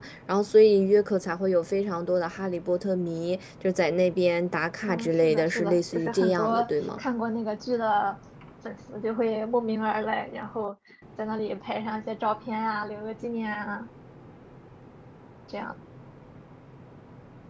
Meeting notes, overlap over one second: present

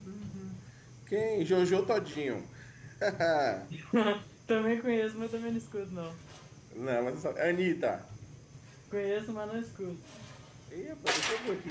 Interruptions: none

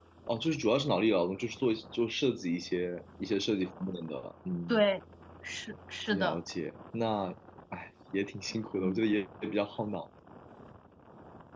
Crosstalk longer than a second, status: none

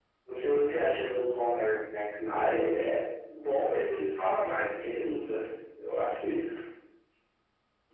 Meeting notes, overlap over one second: none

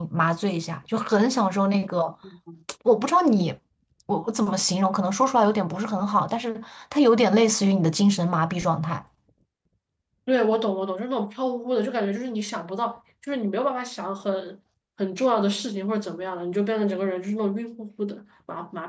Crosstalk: none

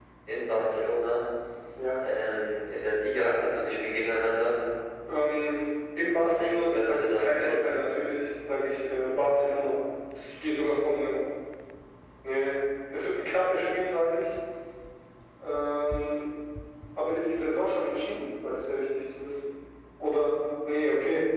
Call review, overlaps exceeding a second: present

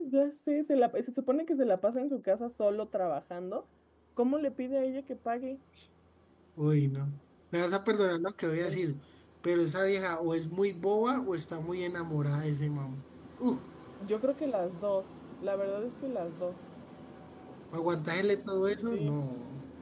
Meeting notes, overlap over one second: none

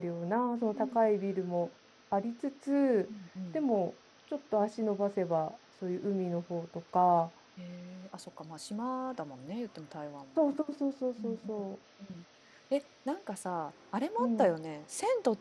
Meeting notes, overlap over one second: none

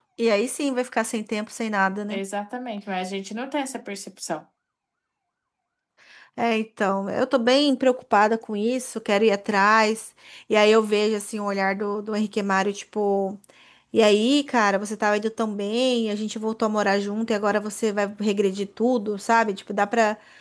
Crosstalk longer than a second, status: none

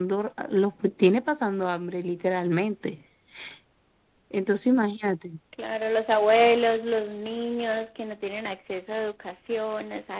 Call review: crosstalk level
none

